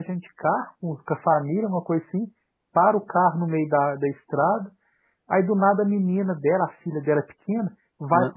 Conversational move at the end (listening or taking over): listening